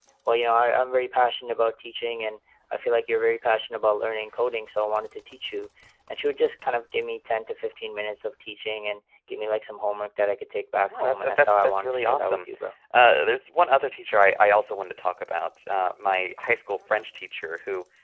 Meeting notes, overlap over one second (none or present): present